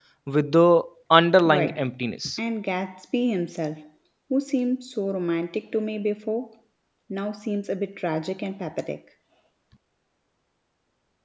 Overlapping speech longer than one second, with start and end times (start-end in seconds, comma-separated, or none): none